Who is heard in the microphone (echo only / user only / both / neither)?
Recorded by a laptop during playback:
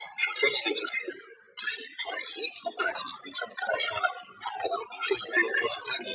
echo only